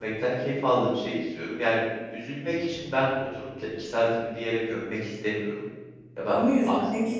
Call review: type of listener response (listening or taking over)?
taking over